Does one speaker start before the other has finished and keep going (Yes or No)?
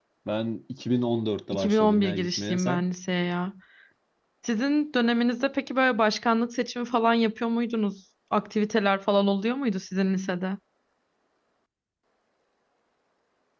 Yes